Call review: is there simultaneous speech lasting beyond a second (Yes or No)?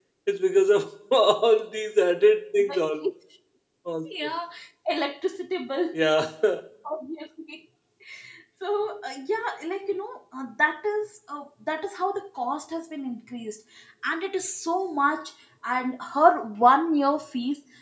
No